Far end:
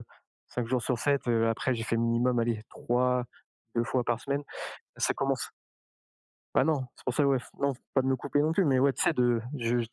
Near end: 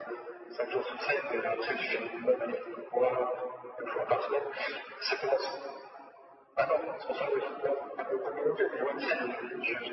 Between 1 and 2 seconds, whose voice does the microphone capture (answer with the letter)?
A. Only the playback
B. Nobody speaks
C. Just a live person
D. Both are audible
D